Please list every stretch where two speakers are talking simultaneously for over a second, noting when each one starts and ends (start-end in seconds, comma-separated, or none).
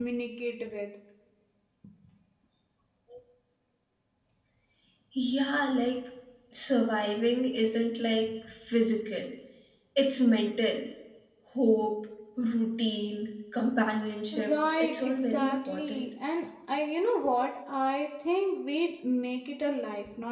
14.4-16.1